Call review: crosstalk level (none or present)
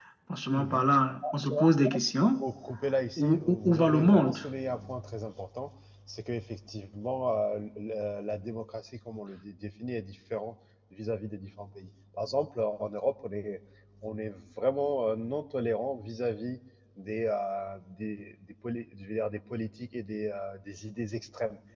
present